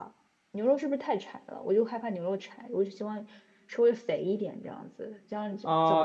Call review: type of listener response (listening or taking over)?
taking over